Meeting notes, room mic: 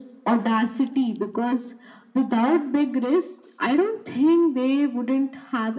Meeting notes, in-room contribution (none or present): none